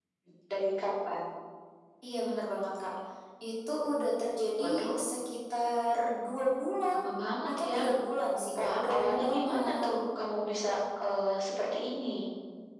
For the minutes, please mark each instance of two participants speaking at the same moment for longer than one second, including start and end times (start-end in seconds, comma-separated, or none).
8.6-9.9